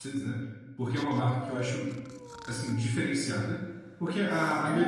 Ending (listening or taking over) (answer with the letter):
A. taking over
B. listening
B